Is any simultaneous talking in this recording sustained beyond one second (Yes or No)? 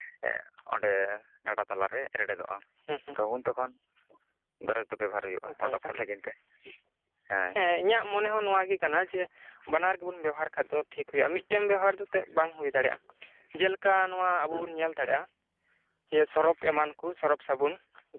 No